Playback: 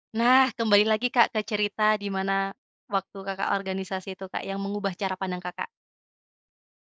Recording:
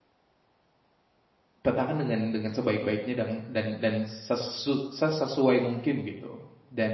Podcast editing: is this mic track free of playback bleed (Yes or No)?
Yes